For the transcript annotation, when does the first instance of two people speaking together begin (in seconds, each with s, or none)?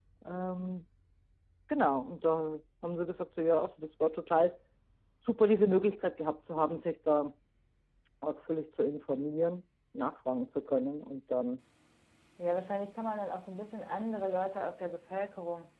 none